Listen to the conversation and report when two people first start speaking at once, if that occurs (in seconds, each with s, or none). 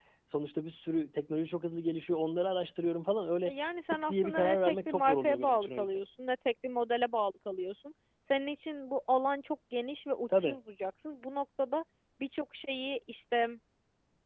3.9 s